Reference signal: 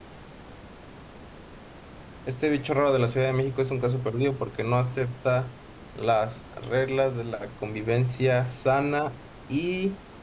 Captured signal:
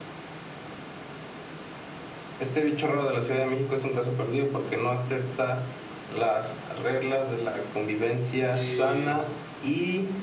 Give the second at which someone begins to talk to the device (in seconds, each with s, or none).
8.5 s